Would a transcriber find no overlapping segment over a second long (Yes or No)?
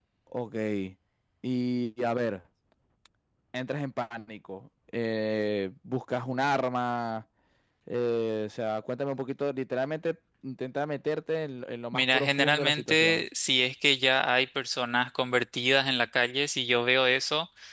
No